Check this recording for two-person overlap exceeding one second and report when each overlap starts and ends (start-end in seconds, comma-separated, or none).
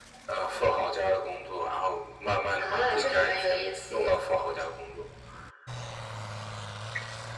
2.6-4.2